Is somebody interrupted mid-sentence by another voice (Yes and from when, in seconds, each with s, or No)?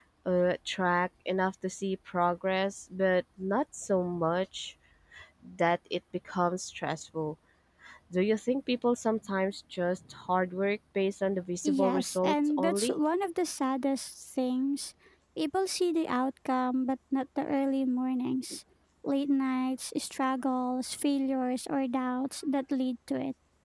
Yes, from 11.6 s